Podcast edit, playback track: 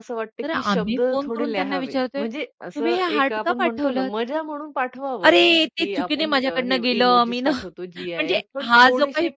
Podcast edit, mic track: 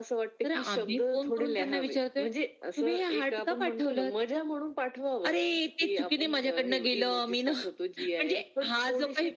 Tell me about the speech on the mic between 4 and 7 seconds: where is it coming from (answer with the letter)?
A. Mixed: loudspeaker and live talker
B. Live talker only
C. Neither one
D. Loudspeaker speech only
D